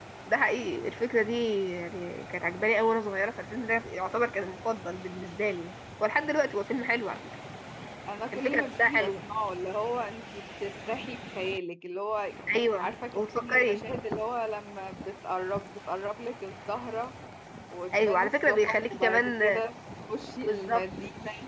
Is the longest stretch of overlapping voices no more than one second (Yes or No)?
No